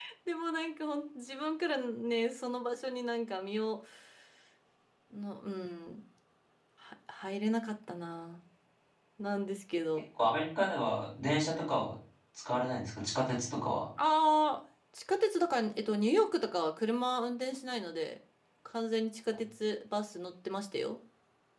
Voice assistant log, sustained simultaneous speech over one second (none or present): none